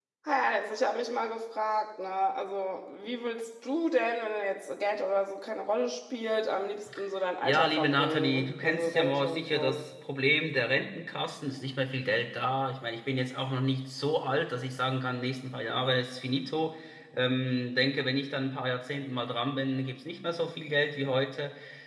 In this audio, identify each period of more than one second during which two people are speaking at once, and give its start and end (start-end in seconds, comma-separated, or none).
7.4-9.8